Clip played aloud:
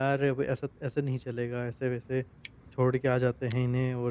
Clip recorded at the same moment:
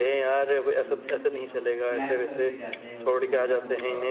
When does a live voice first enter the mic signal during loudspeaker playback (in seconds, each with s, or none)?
0.8 s